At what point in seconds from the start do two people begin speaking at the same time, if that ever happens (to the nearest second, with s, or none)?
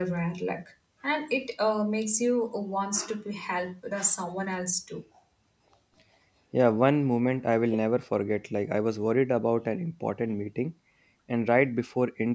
none